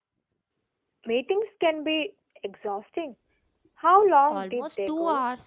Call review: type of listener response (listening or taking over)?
taking over